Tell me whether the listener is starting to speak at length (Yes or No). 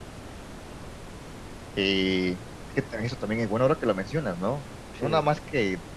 No